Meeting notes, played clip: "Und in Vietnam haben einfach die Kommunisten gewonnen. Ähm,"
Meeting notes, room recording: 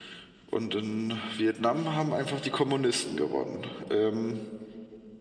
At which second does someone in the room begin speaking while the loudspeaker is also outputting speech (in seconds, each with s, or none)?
none